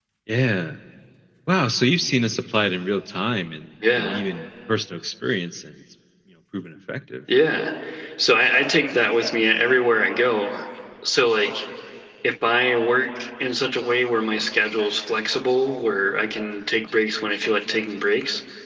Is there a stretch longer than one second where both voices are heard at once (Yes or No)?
No